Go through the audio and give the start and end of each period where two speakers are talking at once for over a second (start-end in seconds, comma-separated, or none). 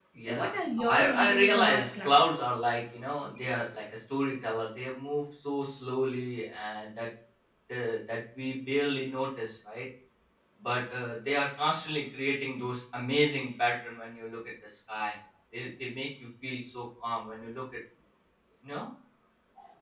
0.9-2.4